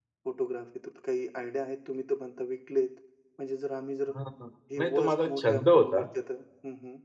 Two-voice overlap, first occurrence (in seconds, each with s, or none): 4.8 s